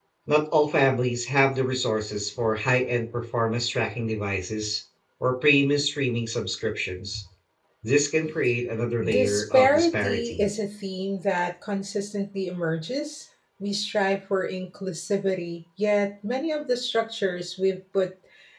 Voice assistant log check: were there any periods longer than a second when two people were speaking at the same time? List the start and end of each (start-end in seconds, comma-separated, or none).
9.1-10.5